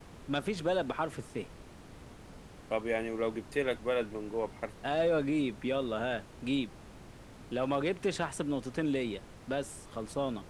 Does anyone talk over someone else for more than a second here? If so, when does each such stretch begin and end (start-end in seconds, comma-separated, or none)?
none